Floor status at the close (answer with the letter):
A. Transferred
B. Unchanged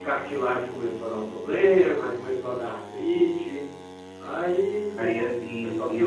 A